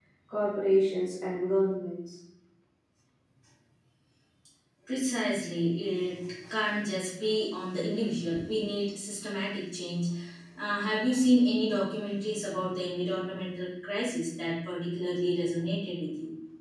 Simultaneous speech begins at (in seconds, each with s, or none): none